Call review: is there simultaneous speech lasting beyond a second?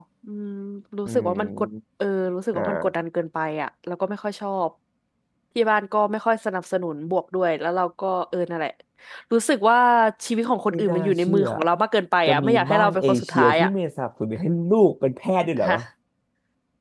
Yes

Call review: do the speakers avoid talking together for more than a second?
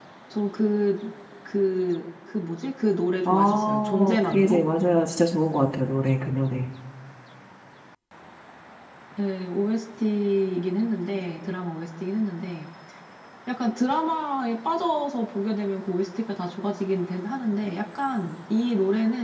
No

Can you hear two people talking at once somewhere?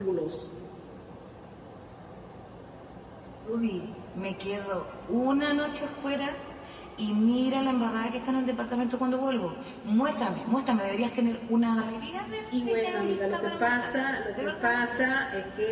Yes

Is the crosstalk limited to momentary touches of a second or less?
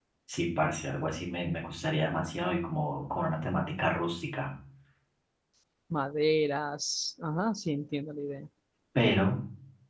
Yes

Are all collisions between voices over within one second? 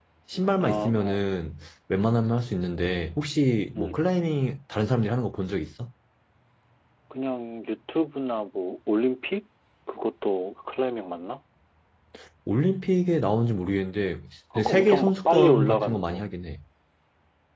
No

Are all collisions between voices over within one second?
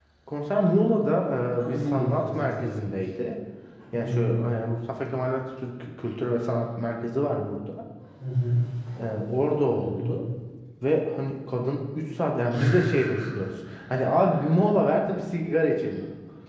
No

